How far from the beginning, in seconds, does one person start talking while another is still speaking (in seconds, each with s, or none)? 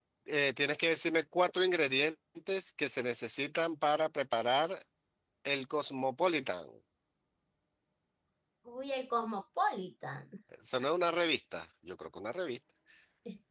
none